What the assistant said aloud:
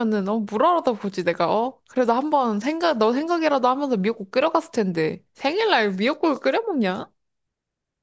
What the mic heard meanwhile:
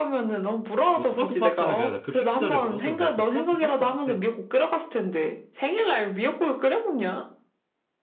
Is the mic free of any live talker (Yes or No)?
No